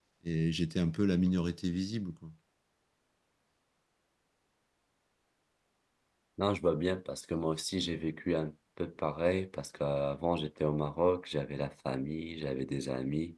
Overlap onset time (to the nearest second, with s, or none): none